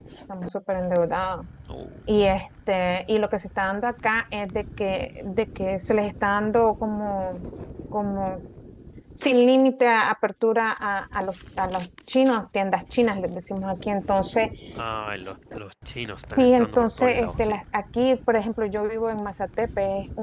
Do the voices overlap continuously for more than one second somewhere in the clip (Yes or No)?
Yes